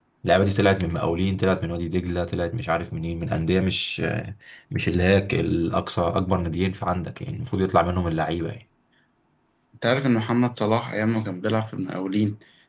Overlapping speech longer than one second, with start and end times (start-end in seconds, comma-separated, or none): none